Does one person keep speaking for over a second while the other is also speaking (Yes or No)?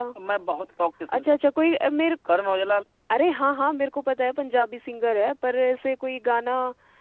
No